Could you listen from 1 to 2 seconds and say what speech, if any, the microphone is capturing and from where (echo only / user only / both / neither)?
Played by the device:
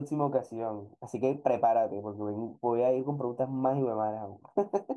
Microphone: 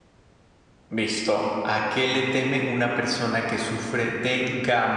user only